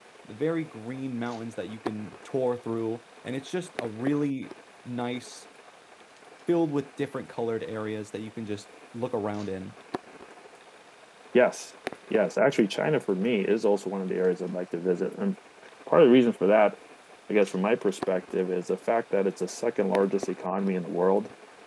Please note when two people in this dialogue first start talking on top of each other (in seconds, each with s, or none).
none